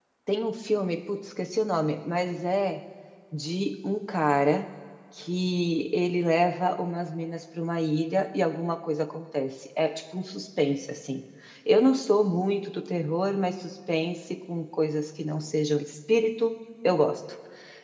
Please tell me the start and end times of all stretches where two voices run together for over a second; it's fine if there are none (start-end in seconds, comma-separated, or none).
none